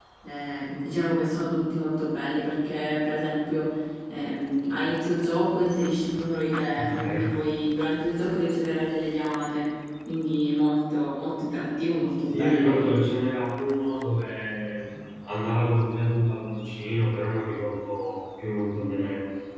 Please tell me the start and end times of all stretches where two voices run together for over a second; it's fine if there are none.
none

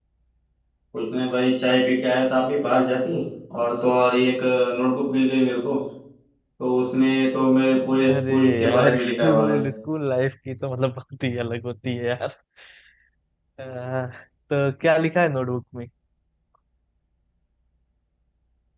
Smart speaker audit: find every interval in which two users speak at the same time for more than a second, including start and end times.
8.1-9.6

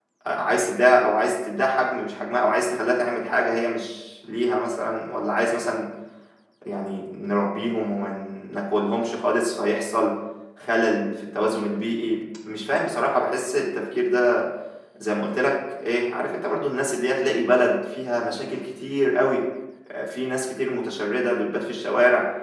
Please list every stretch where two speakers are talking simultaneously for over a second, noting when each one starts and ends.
none

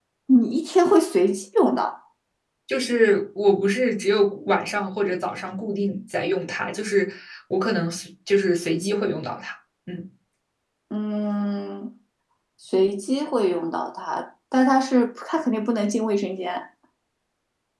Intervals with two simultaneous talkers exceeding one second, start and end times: none

